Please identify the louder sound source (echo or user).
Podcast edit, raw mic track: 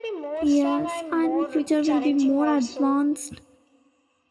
user